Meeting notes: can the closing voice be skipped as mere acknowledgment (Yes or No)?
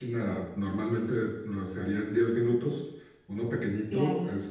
Yes